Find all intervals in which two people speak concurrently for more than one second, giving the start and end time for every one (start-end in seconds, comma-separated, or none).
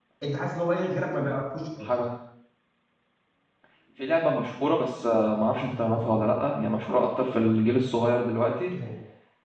none